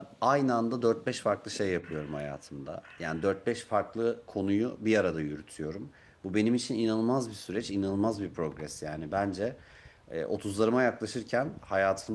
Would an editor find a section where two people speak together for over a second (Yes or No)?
No